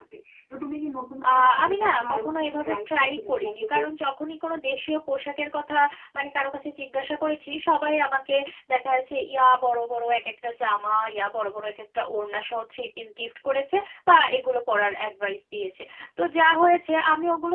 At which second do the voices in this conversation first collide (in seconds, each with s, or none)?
1.3 s